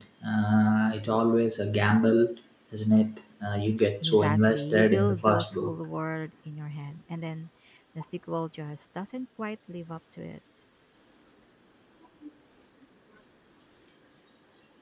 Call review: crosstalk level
present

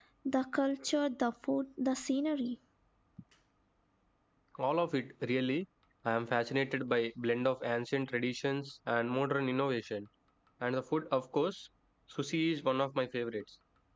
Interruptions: none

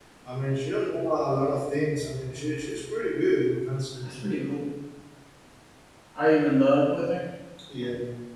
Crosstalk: none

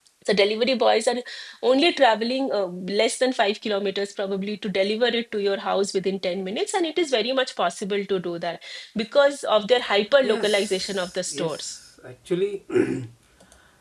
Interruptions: present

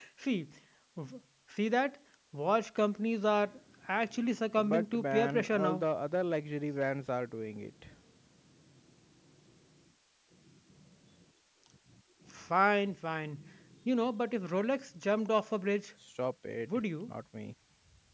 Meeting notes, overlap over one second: present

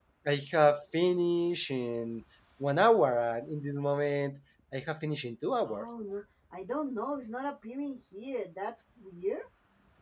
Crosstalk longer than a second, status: none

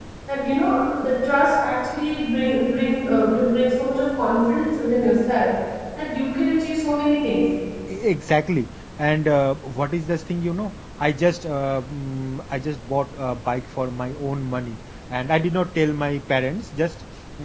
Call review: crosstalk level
none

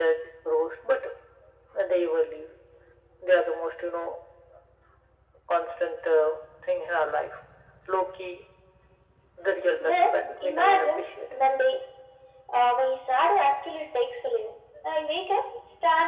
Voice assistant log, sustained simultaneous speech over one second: present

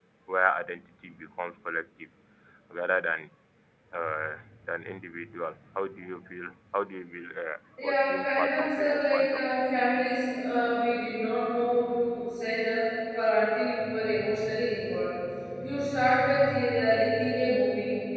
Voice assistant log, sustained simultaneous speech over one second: present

